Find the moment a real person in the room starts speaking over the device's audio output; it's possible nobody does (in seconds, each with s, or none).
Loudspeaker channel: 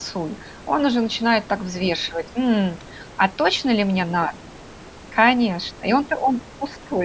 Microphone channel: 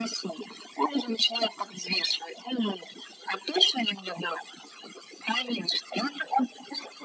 none